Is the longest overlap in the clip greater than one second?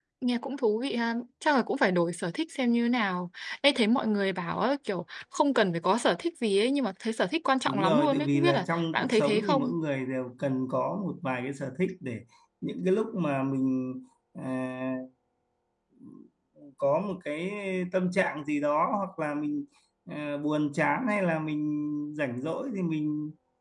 Yes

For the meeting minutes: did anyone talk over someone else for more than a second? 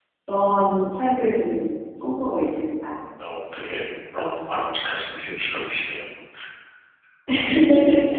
No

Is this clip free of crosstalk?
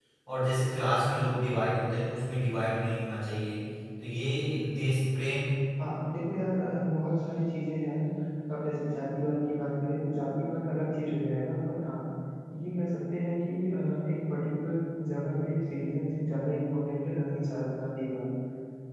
Yes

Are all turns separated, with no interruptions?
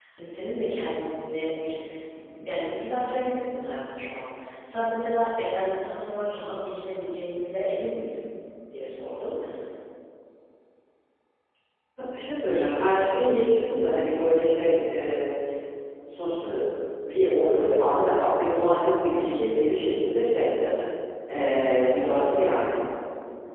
Yes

